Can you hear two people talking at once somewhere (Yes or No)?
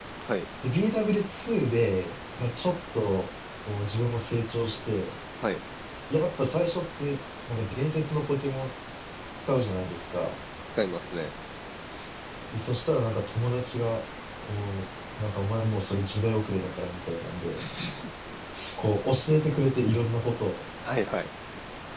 No